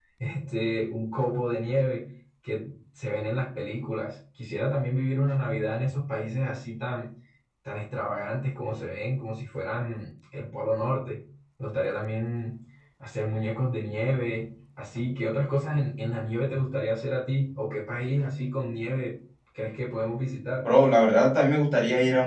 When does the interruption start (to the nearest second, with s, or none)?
none